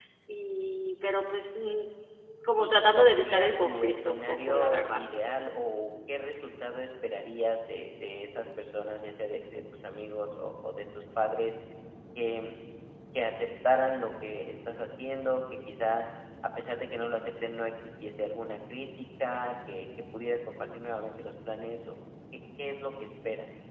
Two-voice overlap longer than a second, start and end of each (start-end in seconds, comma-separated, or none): 2.6-5.0